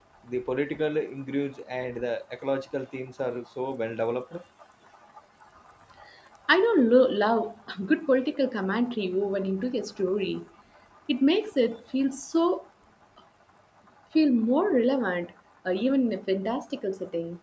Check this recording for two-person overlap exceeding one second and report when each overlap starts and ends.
none

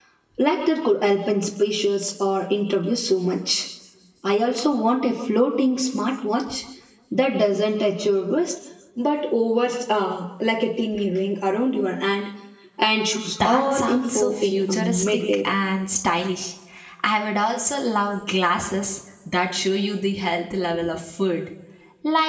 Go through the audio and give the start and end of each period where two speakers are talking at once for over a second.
13.4-15.4

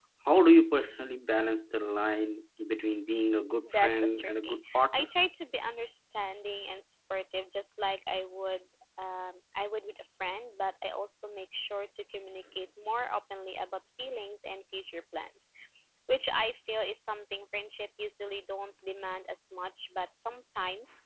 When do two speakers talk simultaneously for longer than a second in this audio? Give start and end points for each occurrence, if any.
3.6-5.1

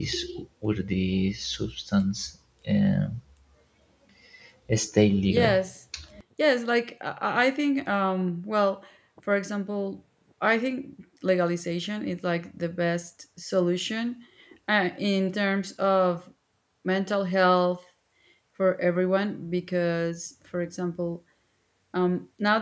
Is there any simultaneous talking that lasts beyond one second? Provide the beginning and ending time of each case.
none

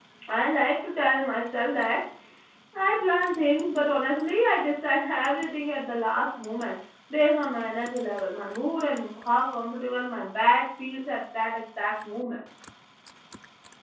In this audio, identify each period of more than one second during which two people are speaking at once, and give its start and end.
none

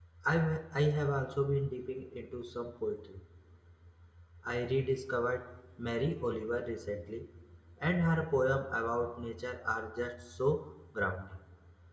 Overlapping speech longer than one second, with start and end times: none

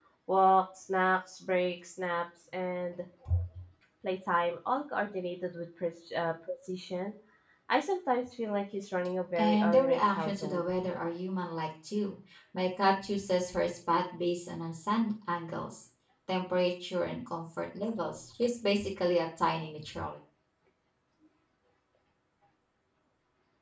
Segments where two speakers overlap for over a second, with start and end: 9.4-10.7

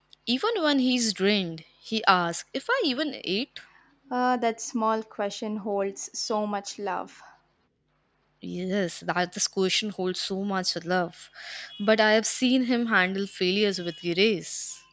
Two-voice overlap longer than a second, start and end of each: none

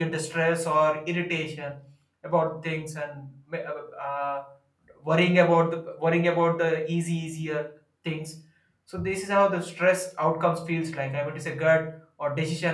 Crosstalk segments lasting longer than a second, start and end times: none

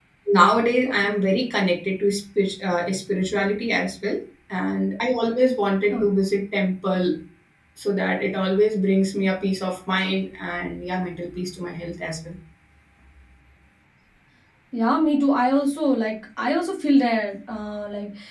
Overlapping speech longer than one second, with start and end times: none

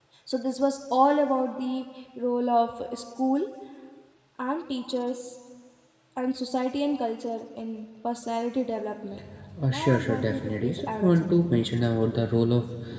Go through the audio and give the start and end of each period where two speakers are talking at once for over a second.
9.7-11.7

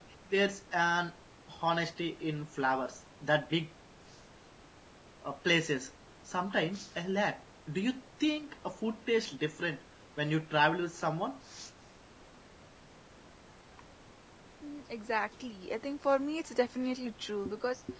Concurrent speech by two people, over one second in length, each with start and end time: none

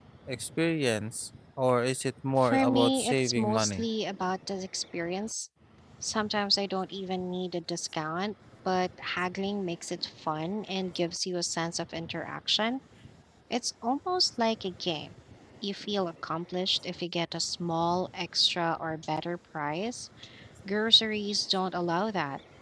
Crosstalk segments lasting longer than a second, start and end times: 2.4-3.9

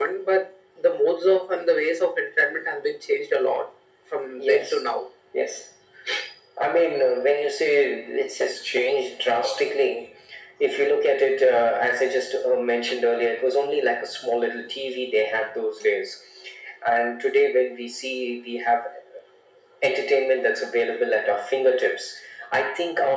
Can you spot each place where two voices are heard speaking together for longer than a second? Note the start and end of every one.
none

